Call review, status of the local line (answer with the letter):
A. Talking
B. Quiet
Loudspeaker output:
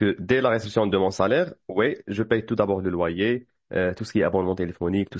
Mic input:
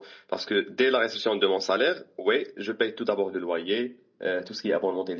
B